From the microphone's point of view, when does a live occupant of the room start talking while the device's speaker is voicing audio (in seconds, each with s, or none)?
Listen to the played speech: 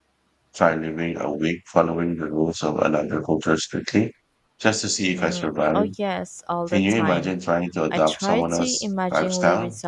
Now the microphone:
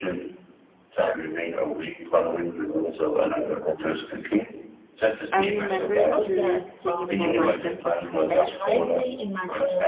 5.3 s